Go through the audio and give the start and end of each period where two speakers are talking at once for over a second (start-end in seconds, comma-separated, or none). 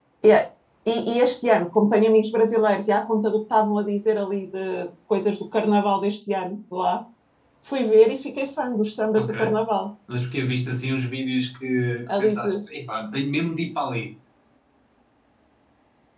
none